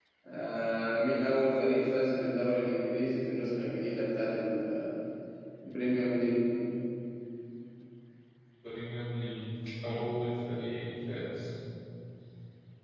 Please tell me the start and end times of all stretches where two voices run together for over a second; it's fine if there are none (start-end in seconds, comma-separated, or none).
none